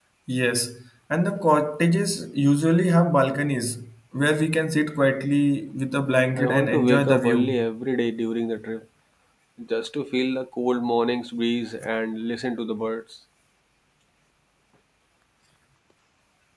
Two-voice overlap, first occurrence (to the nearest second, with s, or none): 6 s